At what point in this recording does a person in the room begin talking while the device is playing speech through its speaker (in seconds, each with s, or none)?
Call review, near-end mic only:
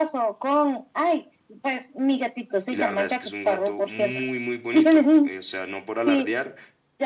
2.7 s